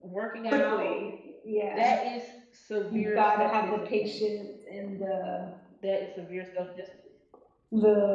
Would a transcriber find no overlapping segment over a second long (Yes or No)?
No